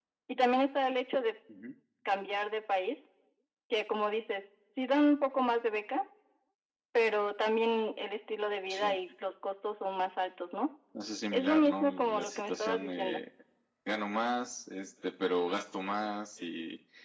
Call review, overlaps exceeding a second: present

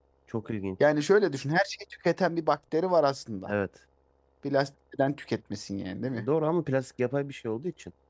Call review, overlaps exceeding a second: none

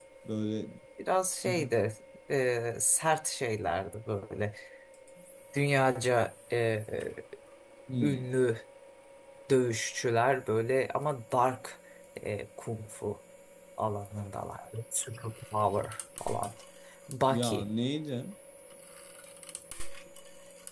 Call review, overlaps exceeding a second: none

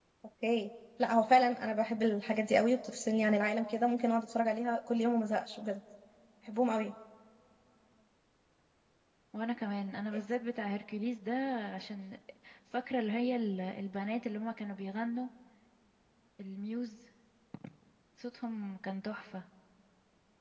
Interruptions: none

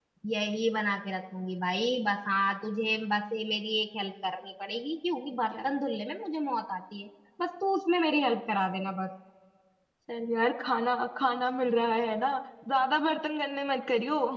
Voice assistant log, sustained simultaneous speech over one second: none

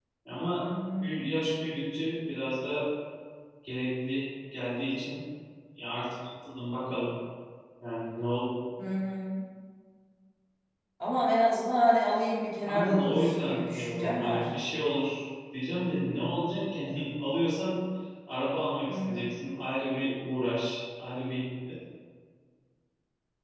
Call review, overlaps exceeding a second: present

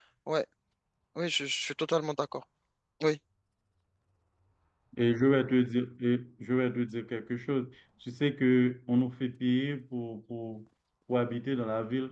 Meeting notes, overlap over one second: none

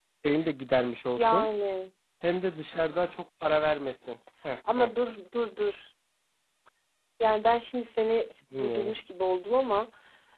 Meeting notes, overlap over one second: none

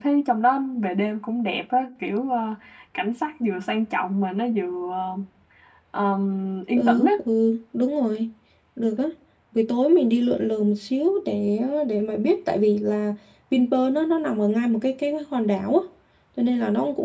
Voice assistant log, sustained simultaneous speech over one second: none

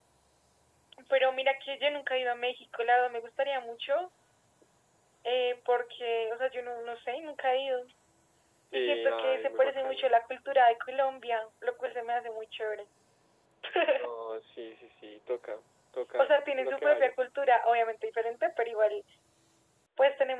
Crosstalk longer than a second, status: present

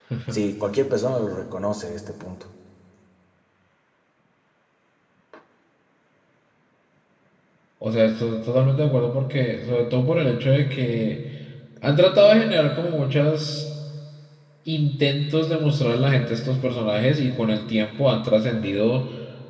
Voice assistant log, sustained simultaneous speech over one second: none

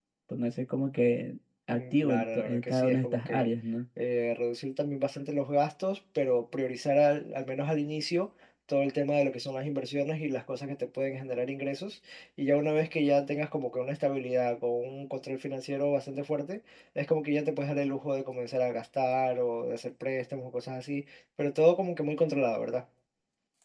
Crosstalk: present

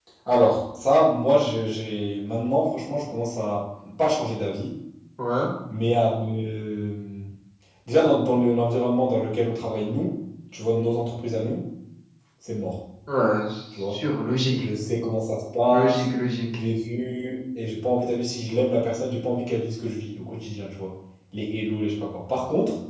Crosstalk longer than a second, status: none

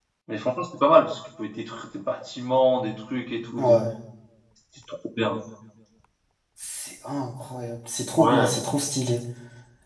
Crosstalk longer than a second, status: none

